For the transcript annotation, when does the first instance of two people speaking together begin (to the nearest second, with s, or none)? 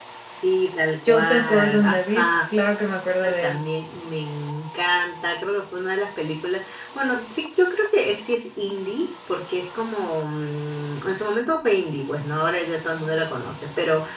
1 s